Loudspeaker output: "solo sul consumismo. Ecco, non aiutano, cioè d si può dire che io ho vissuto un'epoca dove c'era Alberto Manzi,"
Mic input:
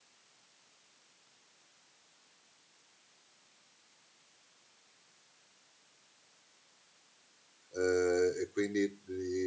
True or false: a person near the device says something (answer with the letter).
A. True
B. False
A